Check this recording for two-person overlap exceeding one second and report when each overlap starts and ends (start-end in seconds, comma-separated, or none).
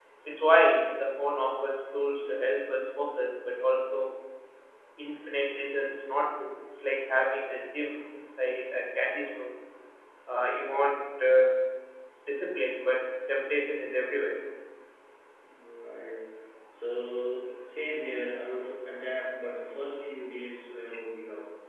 none